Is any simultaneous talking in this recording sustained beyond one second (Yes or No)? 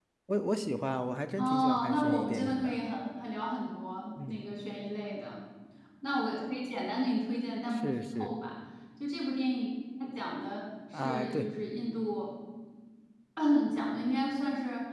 Yes